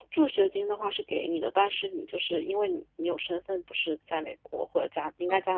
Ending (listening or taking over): listening